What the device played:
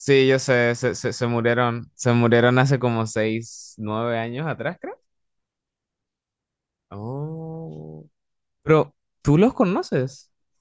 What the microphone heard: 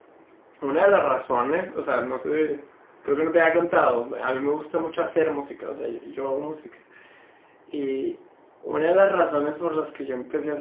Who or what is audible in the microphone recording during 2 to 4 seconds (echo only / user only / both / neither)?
user only